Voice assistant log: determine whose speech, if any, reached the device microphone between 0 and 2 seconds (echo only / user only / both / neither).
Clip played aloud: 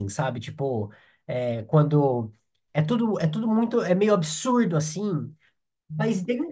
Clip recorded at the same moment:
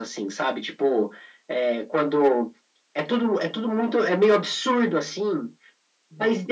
echo only